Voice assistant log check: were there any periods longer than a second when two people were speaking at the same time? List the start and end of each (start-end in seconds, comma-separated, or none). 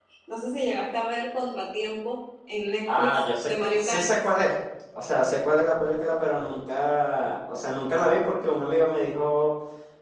2.9-4.2